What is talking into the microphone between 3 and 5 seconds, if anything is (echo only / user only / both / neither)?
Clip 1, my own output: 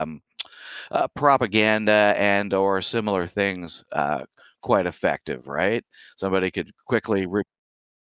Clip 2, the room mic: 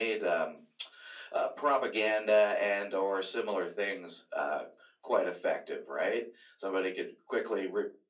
echo only